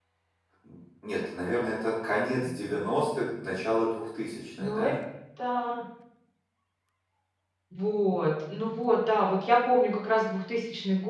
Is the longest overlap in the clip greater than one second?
No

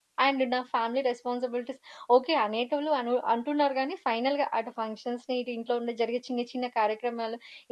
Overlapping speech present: No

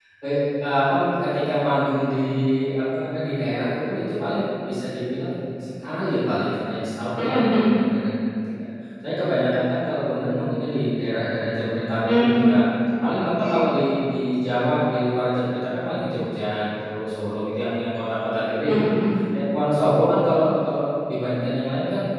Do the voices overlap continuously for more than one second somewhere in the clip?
No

